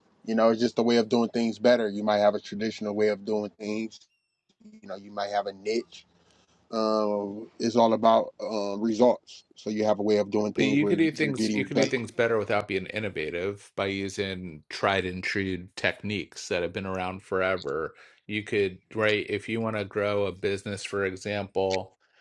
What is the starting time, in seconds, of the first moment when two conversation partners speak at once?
10.6 s

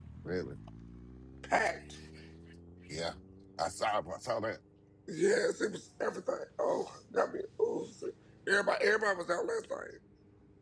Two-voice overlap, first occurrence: none

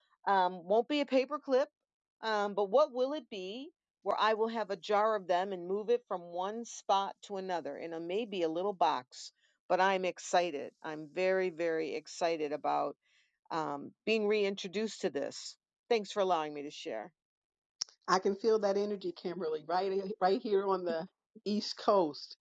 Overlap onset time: none

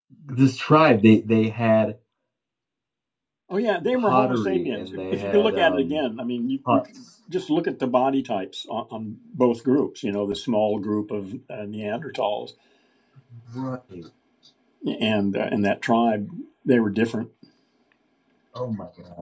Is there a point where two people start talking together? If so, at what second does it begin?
3.9 s

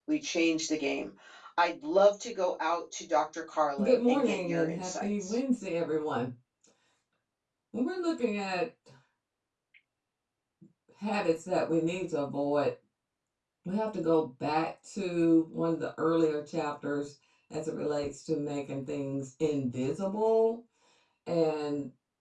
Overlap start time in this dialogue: 3.8 s

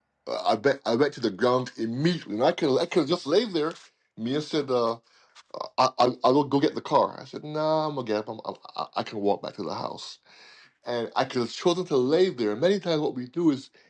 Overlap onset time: none

